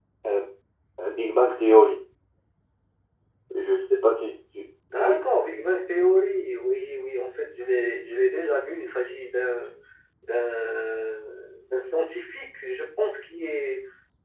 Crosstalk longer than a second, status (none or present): none